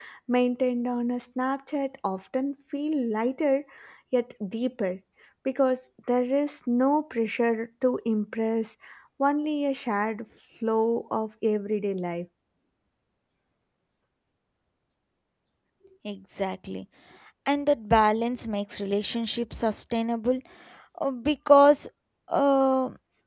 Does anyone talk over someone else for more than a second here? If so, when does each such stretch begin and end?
none

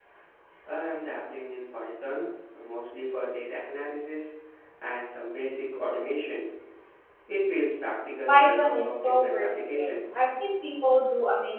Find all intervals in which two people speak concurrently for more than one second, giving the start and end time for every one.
8.3-10.0

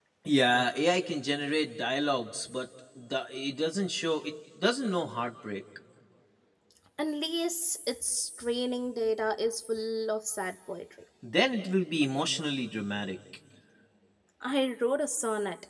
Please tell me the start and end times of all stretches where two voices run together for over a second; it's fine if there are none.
none

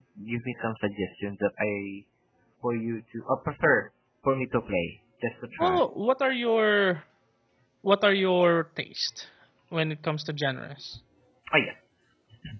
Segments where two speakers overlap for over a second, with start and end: none

